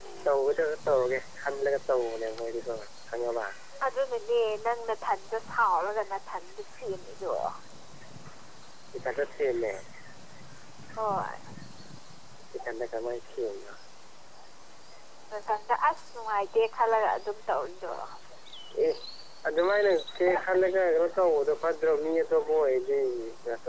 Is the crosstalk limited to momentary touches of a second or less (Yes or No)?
Yes